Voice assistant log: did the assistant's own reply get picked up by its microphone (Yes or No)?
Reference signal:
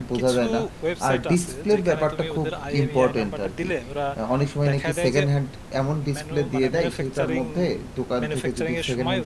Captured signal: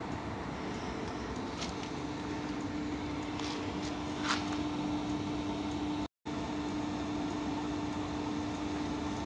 No